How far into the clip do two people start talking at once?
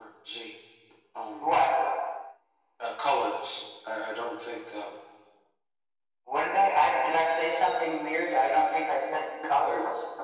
none

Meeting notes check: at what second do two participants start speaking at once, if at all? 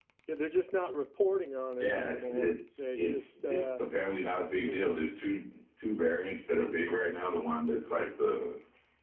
1.8 s

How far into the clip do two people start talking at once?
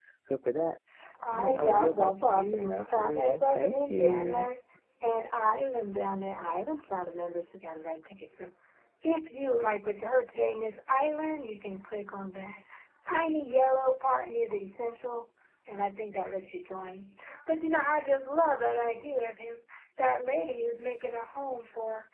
1.3 s

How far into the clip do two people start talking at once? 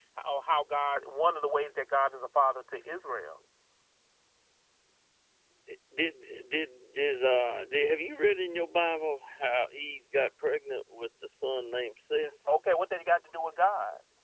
none

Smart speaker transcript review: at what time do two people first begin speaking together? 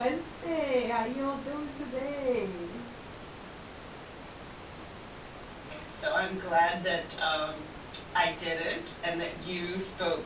none

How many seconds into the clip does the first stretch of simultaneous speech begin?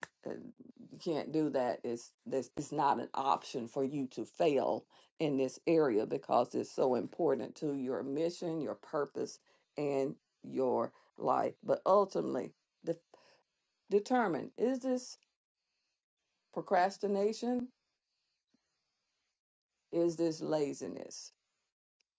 none

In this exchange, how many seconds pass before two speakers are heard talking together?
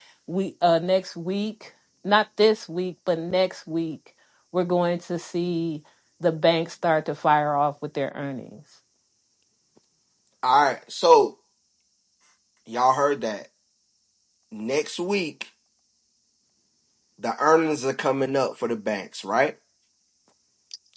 none

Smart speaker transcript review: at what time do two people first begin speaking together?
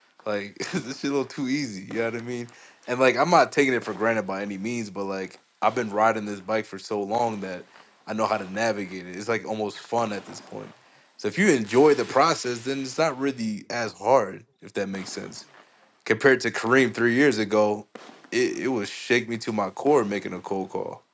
none

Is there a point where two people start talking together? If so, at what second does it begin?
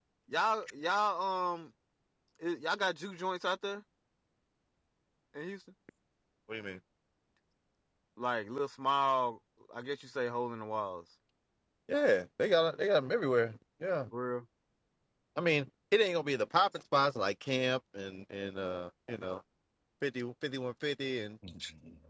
none

